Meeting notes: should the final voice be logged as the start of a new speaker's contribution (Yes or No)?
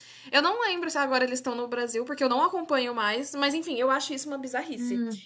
Yes